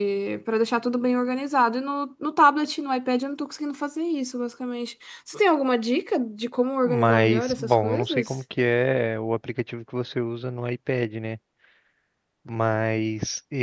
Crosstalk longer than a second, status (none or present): present